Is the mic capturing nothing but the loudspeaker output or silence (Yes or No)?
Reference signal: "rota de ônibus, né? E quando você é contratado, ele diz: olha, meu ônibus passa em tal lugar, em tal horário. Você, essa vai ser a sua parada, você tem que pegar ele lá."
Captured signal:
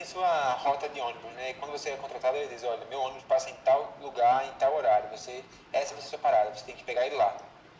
Yes